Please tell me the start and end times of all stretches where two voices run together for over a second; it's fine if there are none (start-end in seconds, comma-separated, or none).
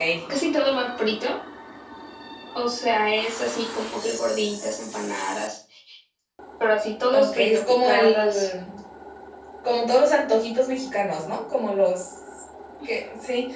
7.1-8.5